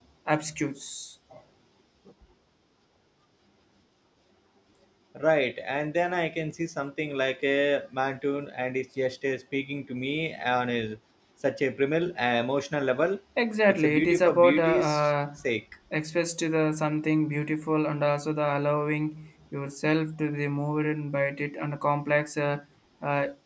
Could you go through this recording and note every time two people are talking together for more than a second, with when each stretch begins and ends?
13.7-15.1

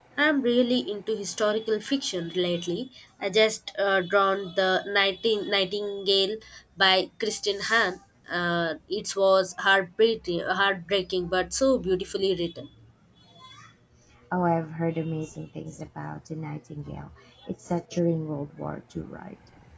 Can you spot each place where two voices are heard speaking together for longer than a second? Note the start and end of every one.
none

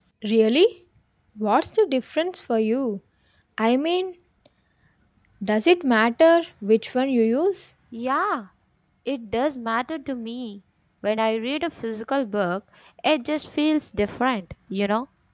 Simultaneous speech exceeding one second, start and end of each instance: none

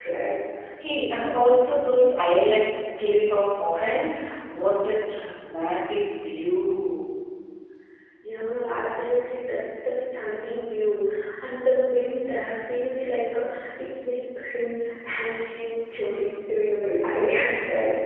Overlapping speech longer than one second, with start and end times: none

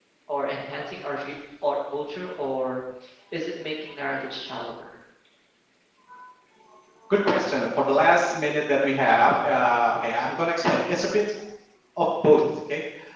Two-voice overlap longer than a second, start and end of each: none

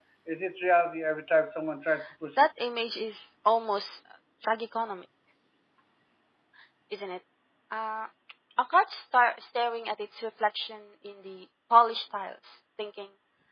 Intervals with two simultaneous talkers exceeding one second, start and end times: none

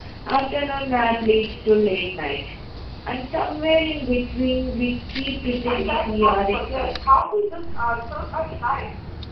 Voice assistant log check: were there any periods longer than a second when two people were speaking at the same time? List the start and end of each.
5.7-7.2

